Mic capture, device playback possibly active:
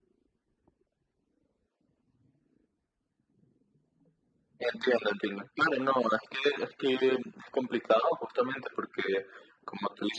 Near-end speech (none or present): none